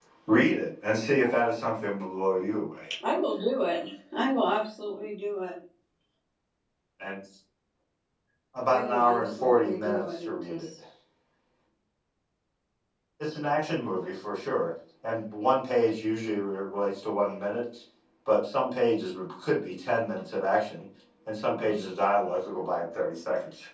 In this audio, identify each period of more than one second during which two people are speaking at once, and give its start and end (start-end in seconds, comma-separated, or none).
8.6-10.7